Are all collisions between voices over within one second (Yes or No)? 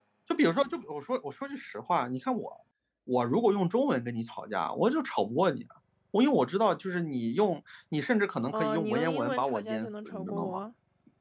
No